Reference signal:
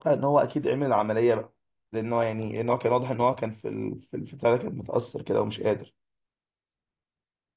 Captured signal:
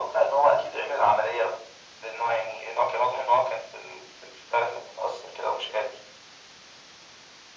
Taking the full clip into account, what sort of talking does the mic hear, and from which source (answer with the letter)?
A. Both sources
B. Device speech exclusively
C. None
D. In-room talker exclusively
B